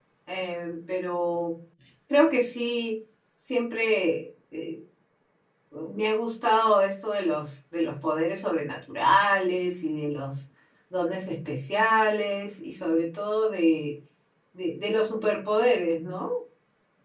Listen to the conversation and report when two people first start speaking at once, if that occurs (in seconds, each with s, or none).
none